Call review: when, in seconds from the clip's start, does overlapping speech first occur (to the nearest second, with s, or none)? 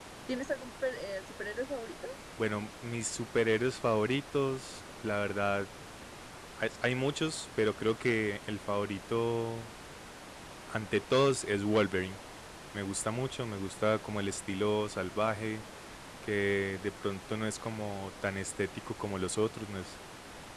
none